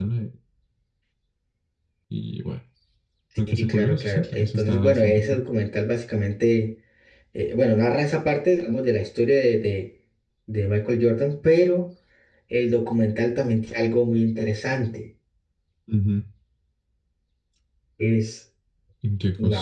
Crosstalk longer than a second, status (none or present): present